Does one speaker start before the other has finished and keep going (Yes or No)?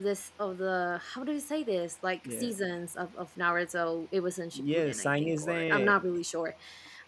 Yes